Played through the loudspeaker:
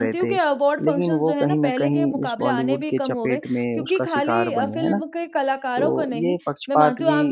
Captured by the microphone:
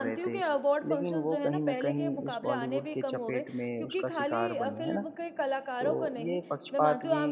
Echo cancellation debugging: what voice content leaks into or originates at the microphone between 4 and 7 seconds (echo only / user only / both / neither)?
echo only